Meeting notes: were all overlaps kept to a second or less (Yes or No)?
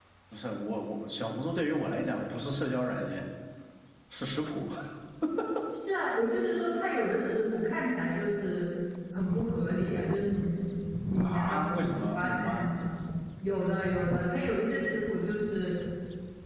No